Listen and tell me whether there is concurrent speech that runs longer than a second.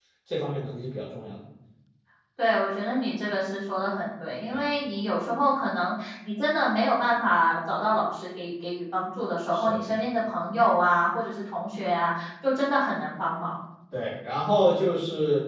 No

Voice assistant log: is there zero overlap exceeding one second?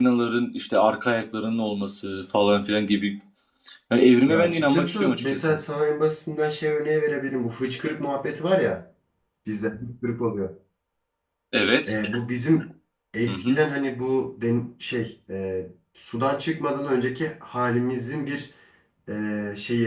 No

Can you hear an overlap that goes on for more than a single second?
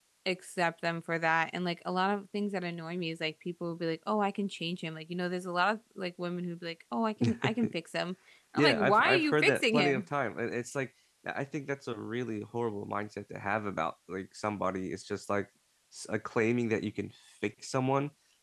Yes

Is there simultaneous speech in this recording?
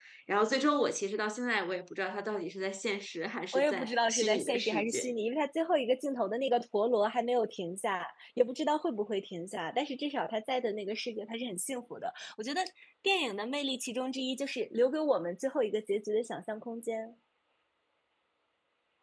Yes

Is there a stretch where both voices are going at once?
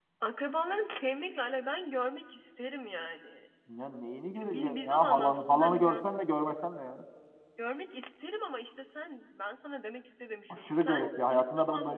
Yes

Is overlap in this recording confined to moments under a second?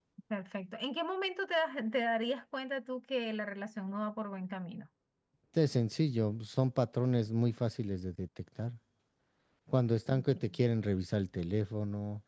Yes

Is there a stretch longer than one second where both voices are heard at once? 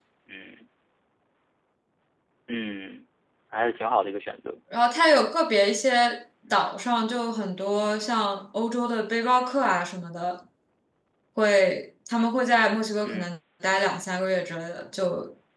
No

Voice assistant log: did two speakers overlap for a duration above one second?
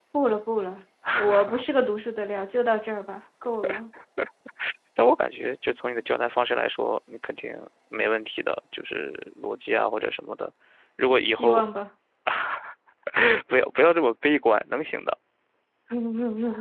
No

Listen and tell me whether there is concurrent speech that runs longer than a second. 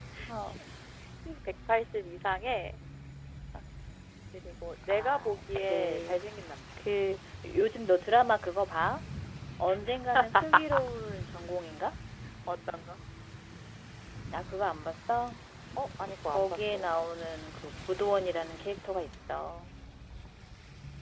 Yes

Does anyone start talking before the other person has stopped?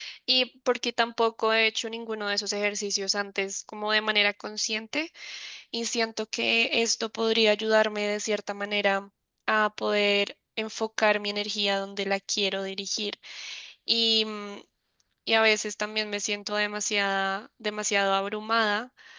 No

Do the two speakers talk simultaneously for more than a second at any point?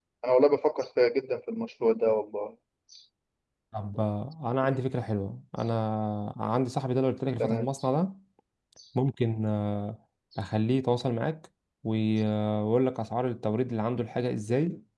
No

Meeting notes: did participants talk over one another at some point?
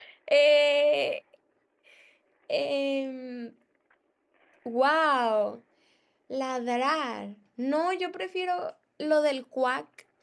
No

